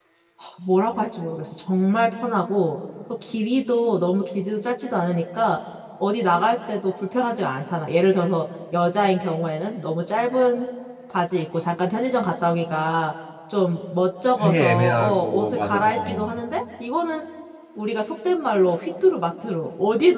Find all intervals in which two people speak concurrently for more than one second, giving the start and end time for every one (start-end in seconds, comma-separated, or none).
14.4-16.4